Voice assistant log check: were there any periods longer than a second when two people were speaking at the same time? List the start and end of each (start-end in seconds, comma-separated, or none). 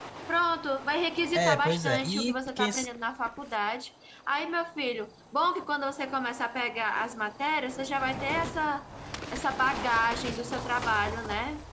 1.3-2.9